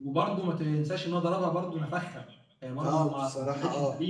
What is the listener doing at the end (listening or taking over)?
taking over